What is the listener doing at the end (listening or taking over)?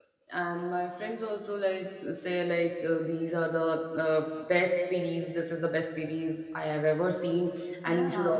listening